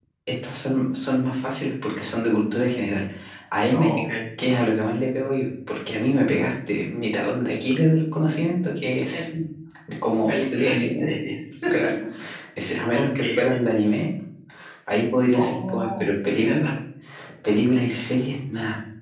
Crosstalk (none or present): present